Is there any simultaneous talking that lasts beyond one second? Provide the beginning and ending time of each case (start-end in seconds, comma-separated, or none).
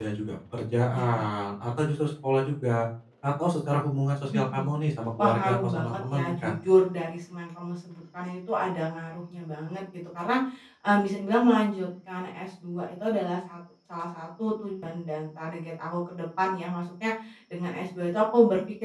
5.2-6.5